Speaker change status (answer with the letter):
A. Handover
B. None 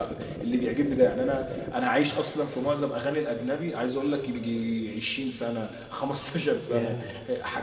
B